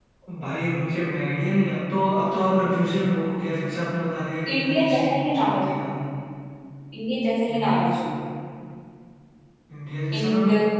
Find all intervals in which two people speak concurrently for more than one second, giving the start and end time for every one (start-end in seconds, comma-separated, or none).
4.5-5.8